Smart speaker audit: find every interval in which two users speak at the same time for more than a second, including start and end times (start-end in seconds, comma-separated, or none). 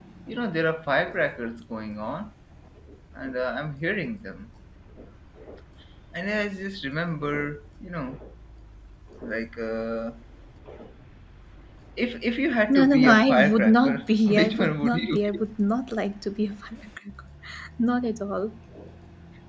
12.7-15.4